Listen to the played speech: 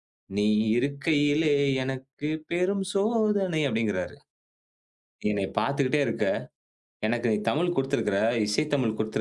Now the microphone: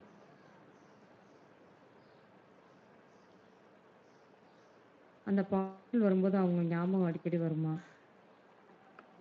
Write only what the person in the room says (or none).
அந்த பாடல் வரும்போது அவங்க ஞாபகம் அடிக்கடி வருமா?